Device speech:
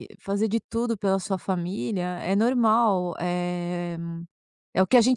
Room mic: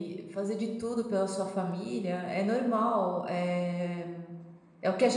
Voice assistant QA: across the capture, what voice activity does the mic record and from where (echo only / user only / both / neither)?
echo only